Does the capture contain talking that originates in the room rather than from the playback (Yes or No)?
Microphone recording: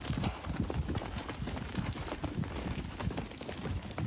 No